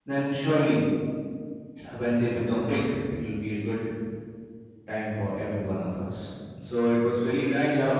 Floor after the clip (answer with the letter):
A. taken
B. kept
B